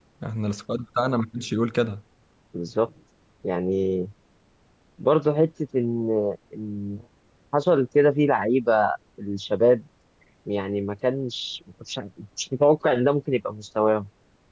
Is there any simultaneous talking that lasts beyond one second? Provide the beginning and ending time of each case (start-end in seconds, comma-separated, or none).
none